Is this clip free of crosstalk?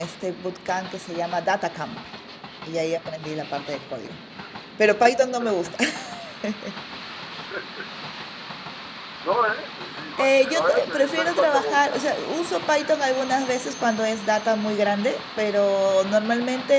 No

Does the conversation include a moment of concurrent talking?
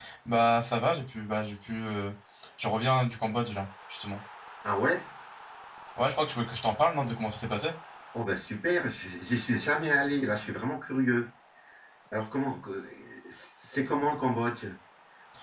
No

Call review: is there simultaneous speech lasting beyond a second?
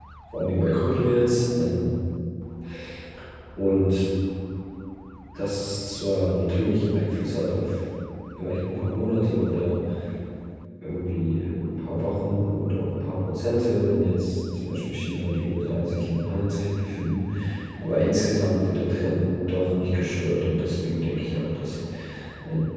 No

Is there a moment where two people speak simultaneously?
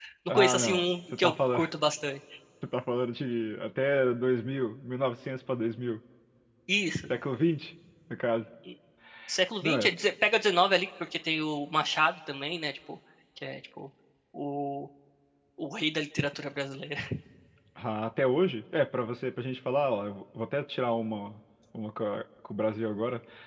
Yes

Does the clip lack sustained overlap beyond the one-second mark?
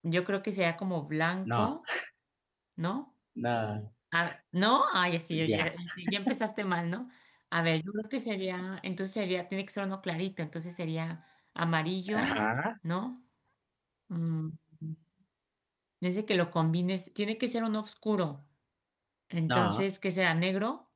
Yes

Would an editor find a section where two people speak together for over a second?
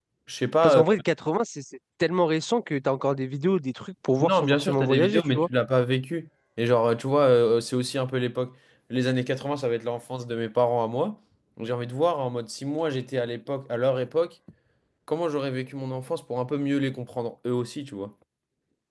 Yes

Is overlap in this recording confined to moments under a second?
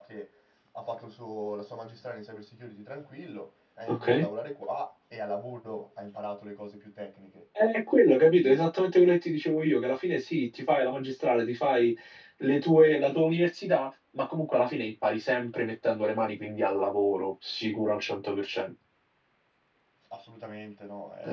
Yes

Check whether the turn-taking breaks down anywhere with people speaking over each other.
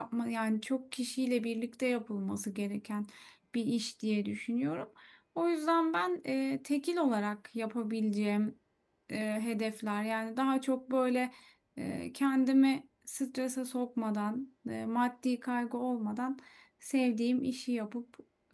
No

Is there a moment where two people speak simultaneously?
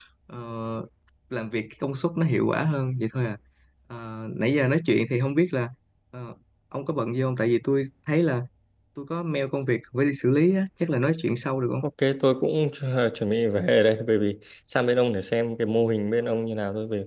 No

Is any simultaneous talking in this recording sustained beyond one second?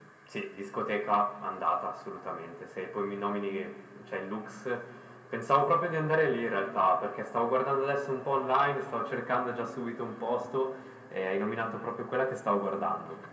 No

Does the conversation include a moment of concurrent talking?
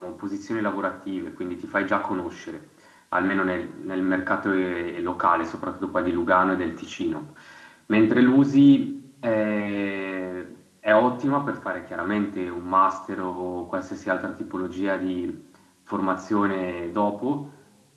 No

